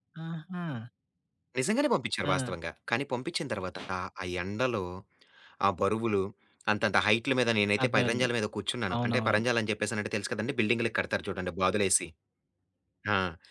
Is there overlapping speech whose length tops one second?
No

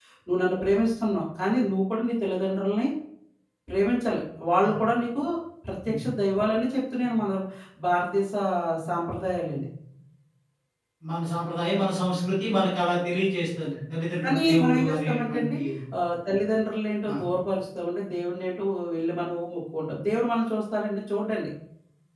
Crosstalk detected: Yes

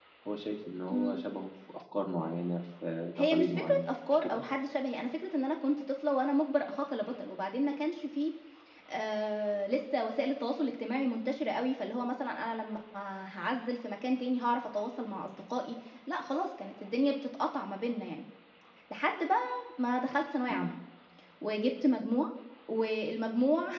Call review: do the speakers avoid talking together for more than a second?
No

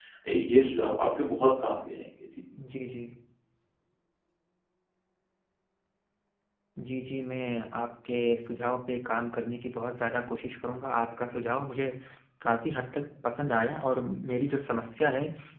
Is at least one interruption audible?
No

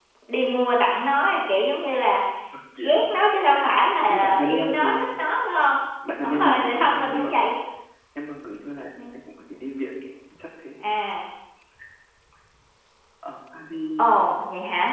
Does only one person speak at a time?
No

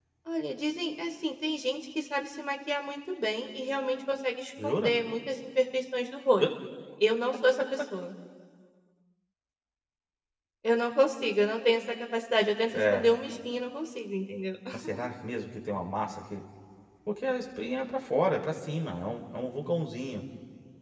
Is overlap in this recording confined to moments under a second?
Yes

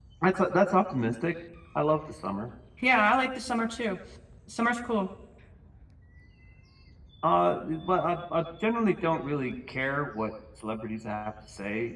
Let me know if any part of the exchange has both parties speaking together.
No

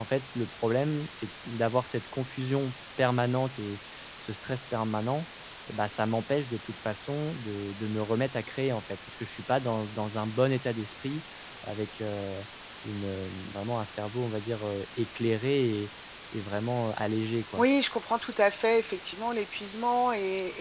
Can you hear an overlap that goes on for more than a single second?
No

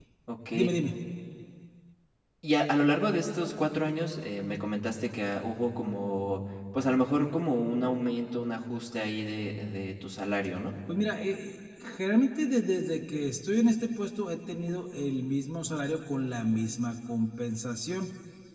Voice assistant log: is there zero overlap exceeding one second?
Yes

